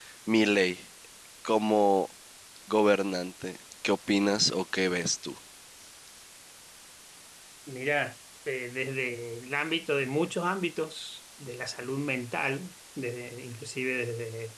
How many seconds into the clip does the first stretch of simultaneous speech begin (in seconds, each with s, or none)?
none